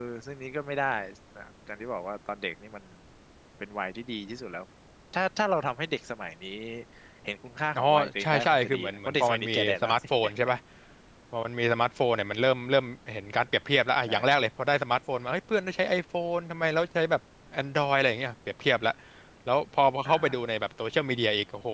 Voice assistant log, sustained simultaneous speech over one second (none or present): present